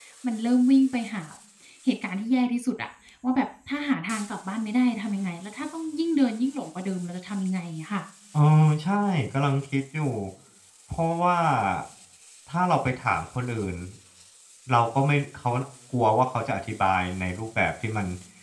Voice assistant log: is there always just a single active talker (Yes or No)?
Yes